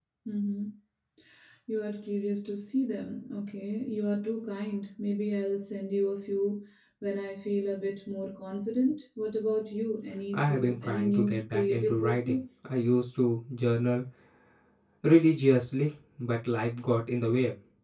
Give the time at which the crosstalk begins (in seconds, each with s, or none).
10.3 s